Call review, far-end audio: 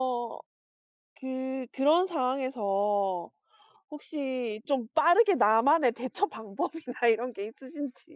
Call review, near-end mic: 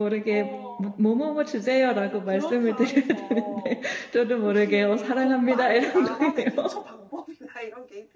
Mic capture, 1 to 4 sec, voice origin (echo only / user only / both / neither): both